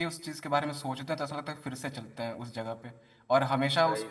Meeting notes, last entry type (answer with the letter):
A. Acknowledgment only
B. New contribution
A